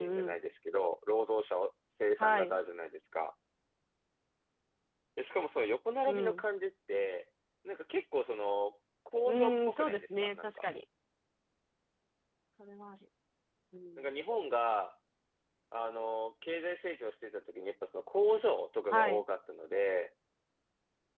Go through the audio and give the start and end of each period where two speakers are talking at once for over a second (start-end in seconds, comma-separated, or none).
9.2-10.6